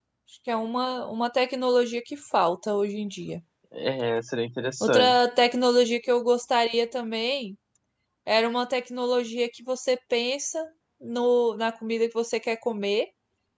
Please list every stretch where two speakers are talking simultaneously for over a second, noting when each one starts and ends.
none

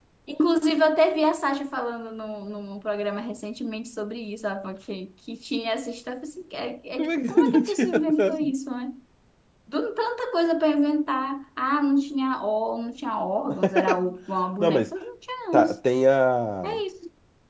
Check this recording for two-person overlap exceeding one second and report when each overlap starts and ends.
7.0-8.5

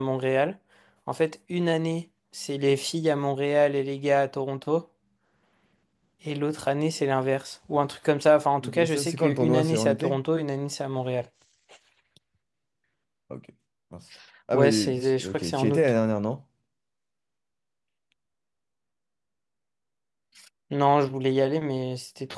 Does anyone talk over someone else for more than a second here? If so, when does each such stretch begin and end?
8.8-10.2, 14.5-15.8

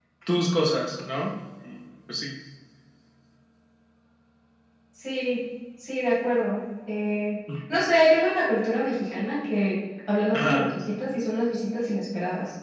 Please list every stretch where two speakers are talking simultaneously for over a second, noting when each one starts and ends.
none

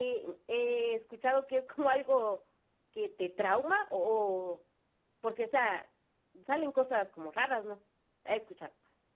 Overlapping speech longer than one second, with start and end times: none

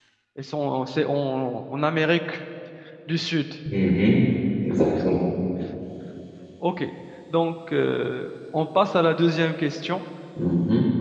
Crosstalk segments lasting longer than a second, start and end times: none

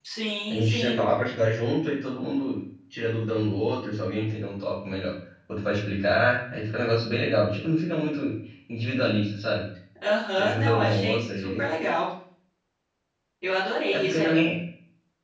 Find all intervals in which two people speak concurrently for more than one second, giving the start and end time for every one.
10.3-11.7

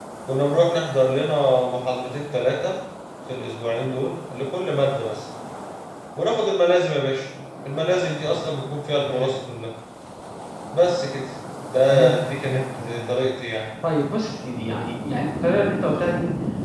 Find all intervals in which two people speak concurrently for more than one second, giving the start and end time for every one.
11.9-13.3

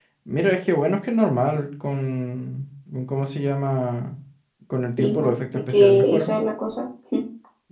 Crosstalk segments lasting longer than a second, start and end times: 5.0-6.3

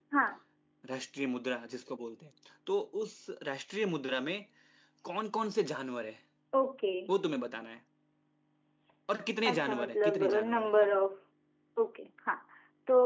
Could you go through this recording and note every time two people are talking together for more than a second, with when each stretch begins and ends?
9.4-10.9

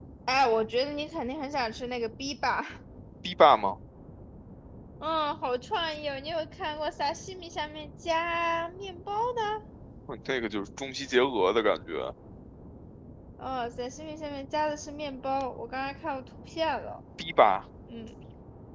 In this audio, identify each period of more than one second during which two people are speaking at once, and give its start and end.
none

